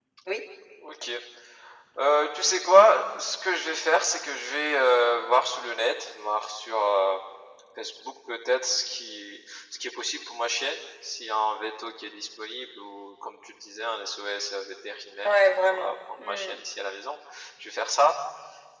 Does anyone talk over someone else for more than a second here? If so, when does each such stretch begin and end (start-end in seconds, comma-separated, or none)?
15.2-16.5